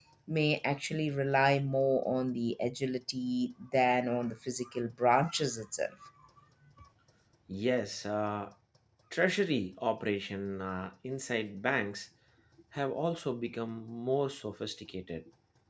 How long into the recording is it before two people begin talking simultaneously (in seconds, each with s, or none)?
none